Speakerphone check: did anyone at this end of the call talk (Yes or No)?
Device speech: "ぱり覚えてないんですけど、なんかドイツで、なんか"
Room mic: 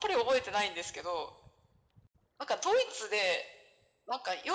No